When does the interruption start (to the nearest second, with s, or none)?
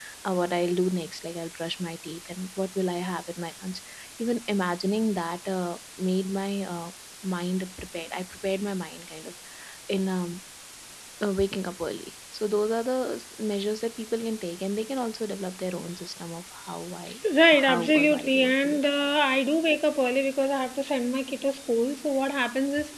17 s